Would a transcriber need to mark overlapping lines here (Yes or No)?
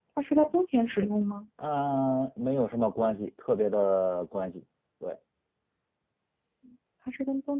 No